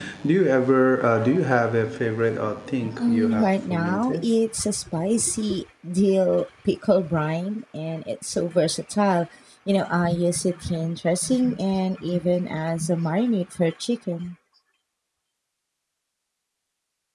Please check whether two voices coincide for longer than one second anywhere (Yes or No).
Yes